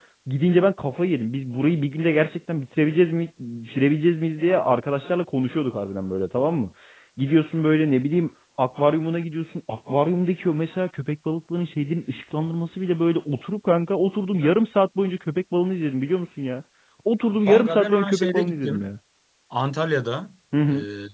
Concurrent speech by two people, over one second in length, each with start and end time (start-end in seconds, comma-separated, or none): 17.5-18.9